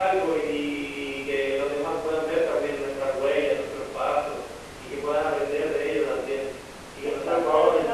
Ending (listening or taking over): taking over